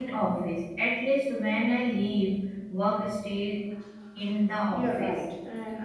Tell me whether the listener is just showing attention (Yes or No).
No